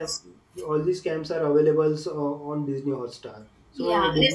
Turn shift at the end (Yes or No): No